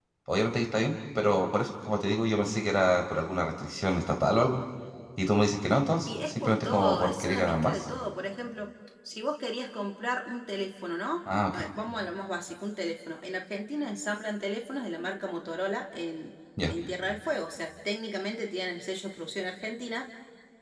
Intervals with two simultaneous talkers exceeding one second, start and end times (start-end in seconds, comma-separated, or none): 6.1-7.8